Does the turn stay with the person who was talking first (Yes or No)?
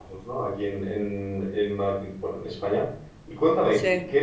Yes